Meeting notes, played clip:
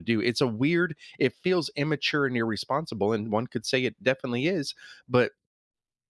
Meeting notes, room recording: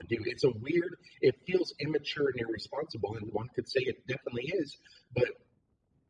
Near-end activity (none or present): none